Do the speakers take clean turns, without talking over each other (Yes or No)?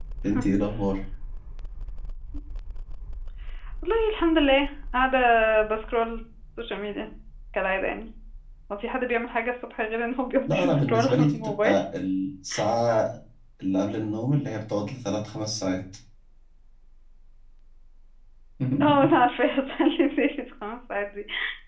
No